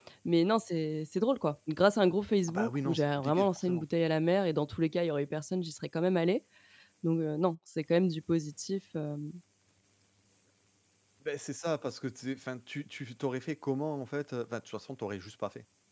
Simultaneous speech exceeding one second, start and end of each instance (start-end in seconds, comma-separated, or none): 2.5-3.8